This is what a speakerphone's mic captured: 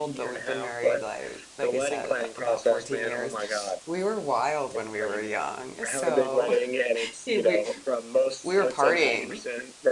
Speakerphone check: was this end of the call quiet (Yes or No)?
No